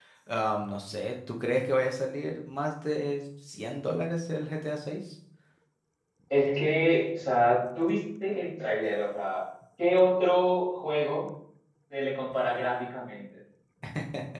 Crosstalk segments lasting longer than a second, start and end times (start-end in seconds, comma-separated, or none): none